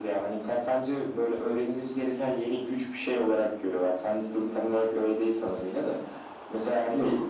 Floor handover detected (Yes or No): No